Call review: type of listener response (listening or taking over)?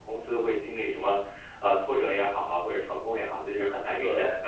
listening